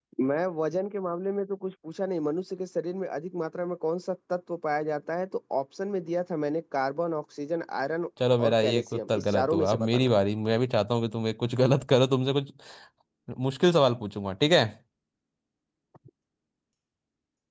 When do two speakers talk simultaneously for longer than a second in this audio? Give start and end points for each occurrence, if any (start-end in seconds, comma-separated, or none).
8.4-10.1